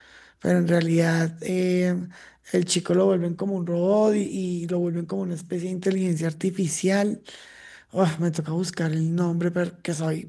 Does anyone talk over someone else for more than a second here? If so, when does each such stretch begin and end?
none

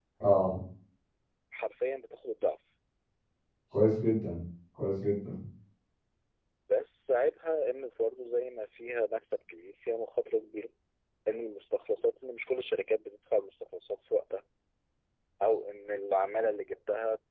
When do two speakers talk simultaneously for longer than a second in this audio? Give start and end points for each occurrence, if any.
none

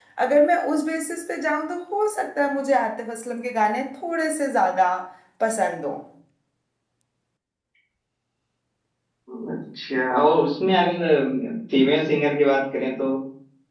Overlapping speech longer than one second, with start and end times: none

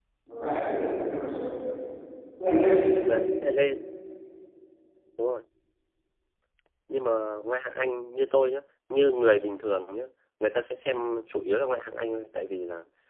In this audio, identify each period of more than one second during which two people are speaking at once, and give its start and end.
none

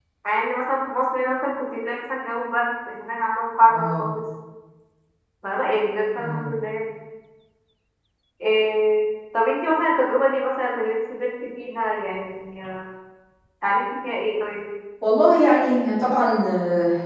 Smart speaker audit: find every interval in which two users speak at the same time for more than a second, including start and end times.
none

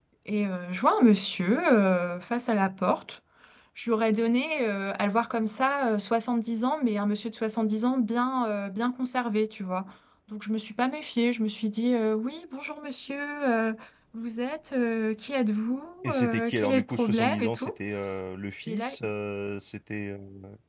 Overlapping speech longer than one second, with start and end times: 16.0-17.7

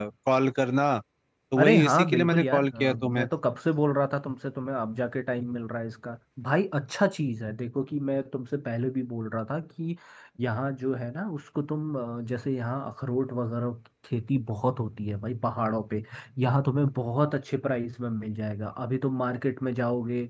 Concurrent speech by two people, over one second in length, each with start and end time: 1.6-3.3

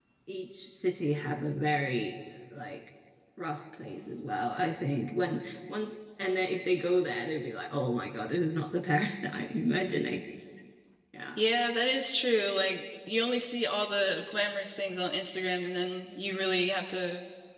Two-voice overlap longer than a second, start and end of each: none

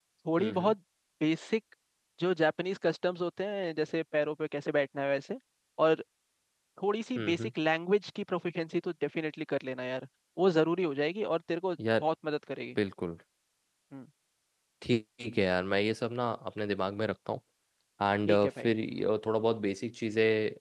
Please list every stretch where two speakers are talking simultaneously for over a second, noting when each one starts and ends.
none

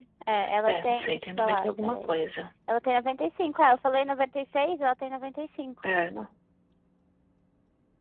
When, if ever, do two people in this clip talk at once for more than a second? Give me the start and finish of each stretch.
0.7-2.1

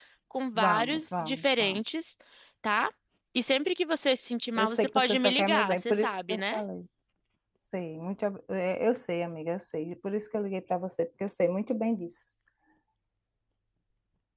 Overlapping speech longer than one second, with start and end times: 0.6-1.8, 4.6-6.6

